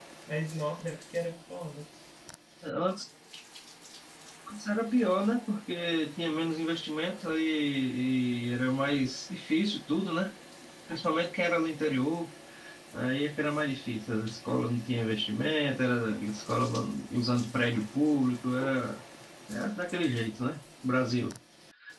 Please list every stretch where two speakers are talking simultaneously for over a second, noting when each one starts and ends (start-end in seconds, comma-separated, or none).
none